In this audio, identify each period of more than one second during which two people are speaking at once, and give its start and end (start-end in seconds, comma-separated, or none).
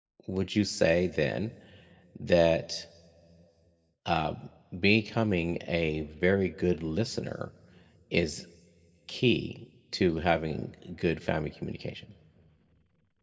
none